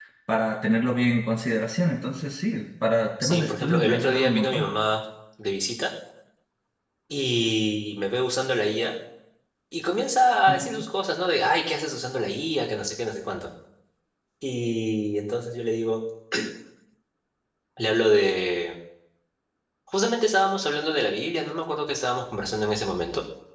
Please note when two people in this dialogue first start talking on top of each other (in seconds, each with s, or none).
3.2 s